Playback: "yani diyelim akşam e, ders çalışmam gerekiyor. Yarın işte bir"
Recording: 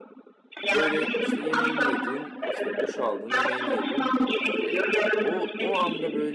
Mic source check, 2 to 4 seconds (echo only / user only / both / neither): both